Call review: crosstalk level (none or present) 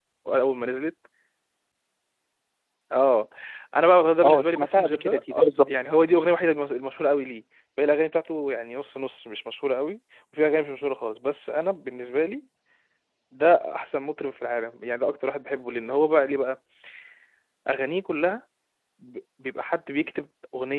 present